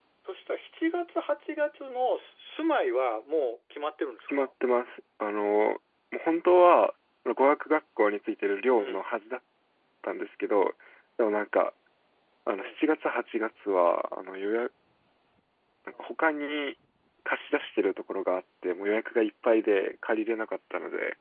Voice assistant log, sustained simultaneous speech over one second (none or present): none